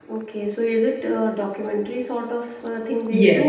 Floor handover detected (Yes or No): Yes